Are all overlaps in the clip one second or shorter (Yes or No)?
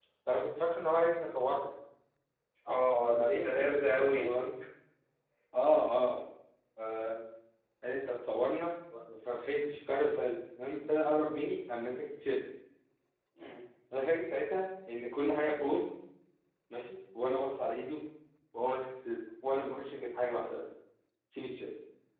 No